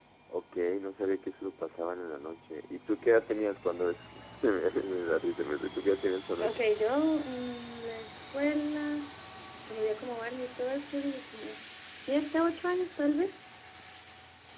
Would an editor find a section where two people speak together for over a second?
No

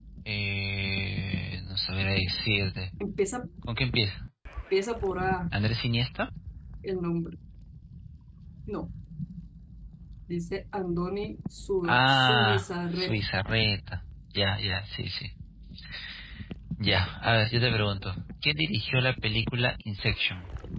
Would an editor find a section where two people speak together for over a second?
Yes, from 11.8 s

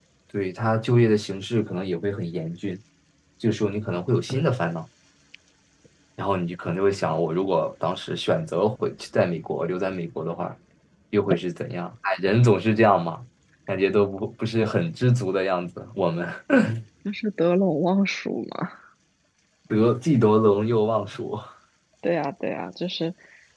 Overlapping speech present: No

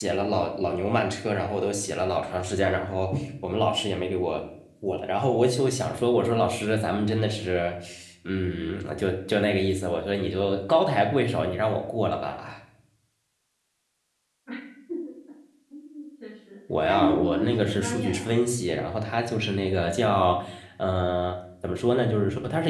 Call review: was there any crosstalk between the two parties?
Yes, from 16.7 s

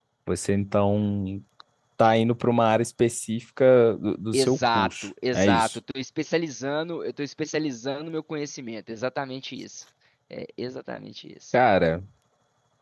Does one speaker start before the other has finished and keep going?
Yes, from 4.3 s

